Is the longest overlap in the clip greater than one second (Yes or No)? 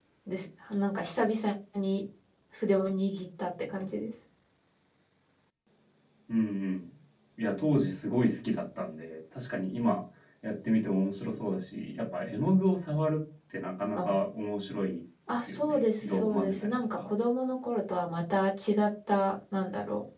Yes